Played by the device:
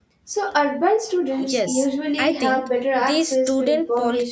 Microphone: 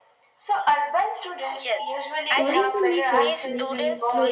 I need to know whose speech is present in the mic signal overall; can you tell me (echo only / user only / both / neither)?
both